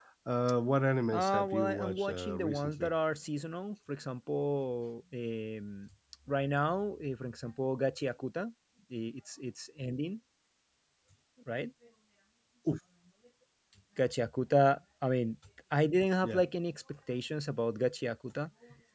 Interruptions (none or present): present